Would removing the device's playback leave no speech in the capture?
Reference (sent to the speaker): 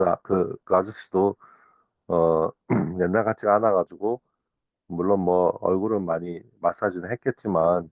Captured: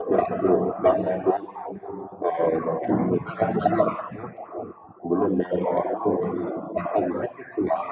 Yes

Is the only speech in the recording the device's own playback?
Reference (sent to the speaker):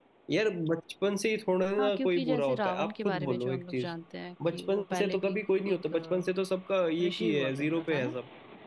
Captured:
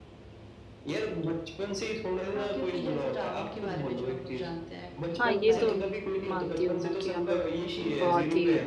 No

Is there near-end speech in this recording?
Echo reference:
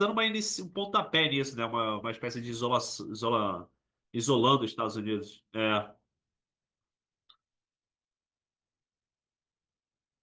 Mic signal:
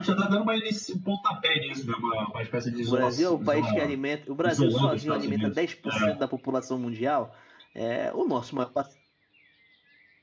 Yes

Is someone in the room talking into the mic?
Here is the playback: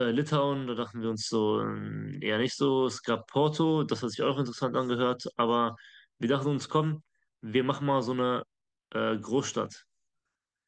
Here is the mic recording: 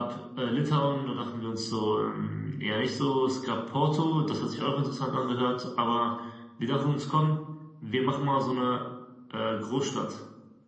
No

